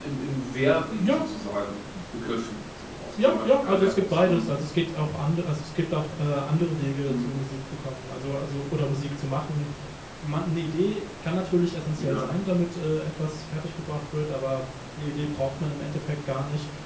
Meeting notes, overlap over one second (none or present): present